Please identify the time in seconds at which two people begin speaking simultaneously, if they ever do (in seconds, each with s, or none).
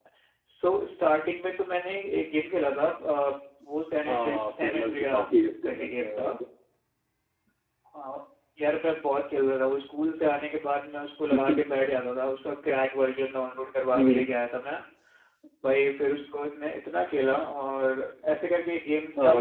4.0 s